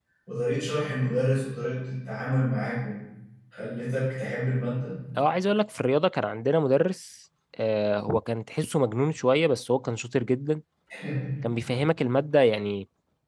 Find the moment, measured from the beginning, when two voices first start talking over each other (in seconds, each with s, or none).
none